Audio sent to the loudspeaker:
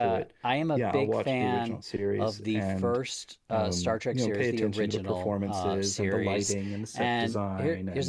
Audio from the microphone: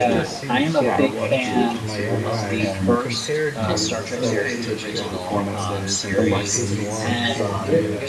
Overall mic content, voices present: both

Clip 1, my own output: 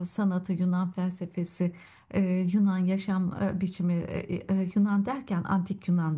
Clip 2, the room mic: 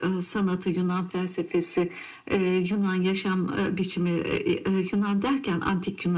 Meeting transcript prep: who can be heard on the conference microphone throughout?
echo only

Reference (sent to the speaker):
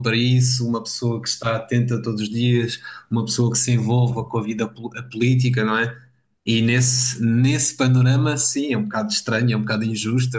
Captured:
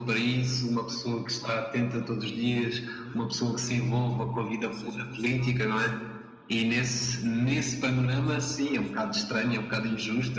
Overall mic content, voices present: both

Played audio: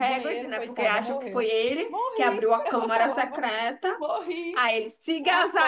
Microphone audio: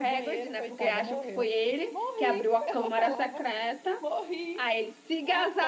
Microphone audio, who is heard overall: echo only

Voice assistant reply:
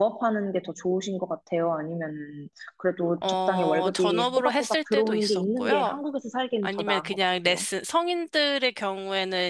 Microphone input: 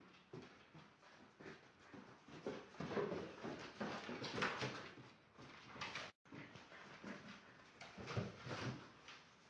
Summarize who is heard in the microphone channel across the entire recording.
neither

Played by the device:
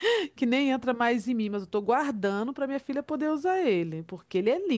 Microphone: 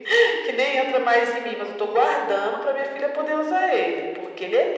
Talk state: echo only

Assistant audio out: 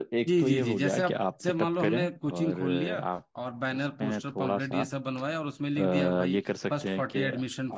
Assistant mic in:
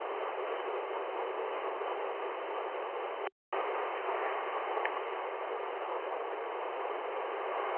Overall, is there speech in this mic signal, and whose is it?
neither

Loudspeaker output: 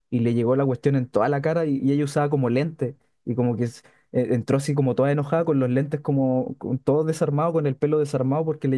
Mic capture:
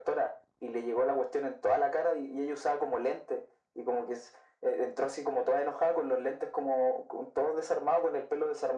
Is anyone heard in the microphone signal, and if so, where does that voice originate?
echo only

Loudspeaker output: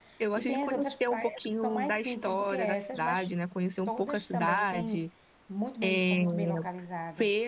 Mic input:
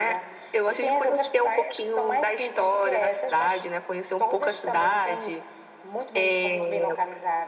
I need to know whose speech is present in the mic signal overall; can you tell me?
echo only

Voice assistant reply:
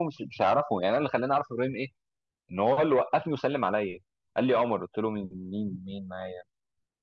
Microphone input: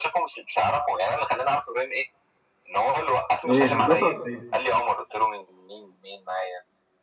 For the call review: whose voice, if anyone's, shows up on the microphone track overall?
both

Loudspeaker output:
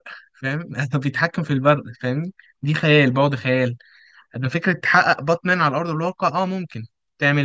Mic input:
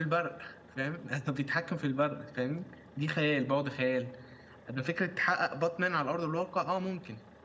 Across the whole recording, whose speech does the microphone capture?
echo only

